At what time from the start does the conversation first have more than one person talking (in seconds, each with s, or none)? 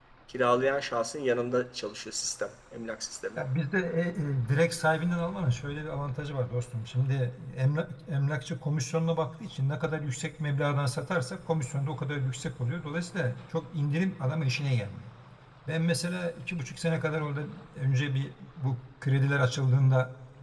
none